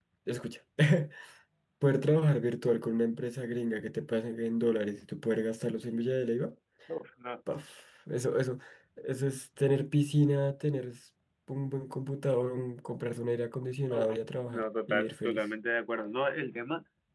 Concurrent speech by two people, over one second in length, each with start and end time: 13.9-15.4

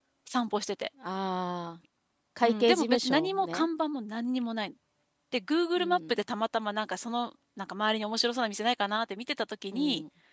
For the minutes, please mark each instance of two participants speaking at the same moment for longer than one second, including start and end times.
2.4-3.7

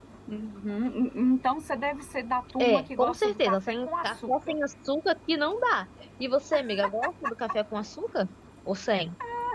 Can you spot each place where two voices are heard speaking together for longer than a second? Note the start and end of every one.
2.6-4.5

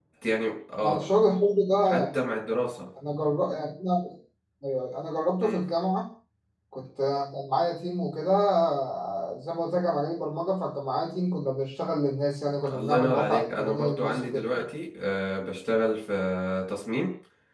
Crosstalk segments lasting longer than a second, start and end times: 12.7-14.5

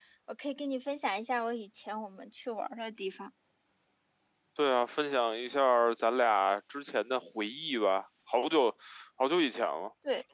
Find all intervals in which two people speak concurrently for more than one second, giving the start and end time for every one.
none

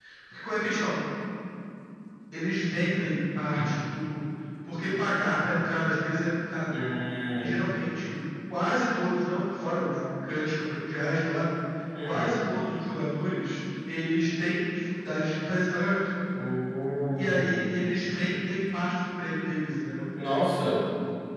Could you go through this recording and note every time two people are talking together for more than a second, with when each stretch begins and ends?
none

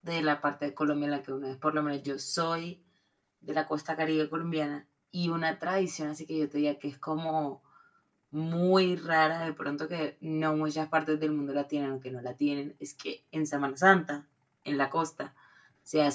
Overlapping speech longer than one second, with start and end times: none

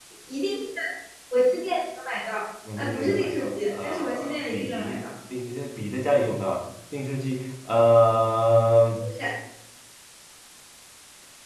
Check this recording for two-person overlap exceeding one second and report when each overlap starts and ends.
2.8-5.0

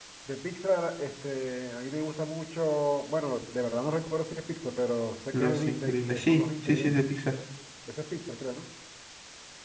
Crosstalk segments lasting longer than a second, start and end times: 5.3-7.0

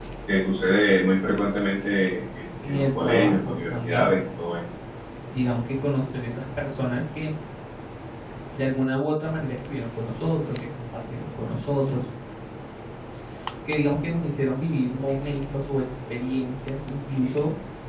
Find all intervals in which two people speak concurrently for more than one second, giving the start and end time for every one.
2.7-4.2

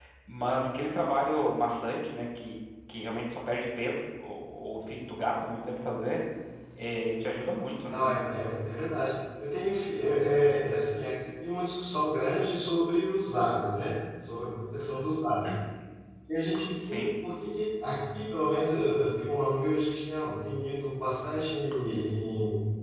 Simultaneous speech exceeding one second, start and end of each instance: none

